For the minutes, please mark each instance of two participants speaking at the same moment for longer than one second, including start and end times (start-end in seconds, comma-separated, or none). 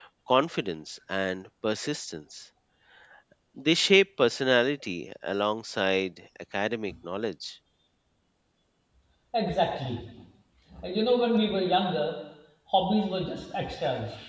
none